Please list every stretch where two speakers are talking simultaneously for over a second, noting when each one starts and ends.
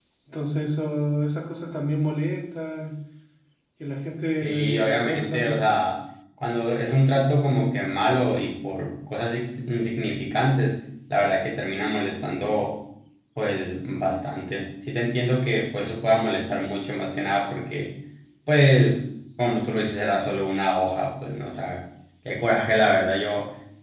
4.4-5.6

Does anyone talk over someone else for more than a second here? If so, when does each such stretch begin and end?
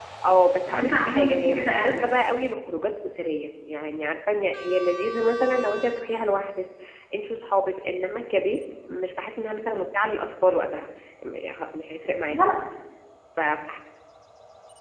0.7-2.1

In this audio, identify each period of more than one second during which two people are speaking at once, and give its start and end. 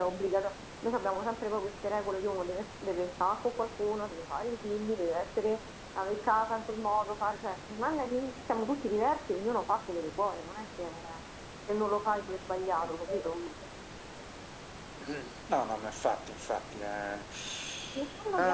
none

